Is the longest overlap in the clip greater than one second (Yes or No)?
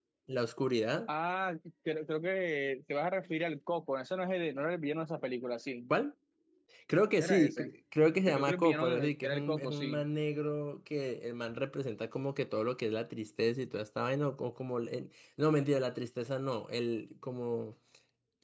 Yes